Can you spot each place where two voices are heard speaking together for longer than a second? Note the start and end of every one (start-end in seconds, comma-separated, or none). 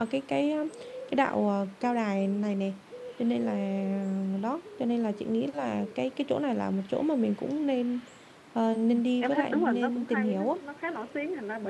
9.2-10.5